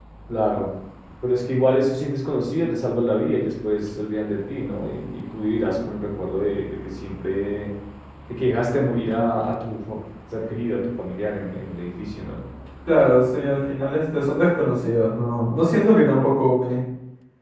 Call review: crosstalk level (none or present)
none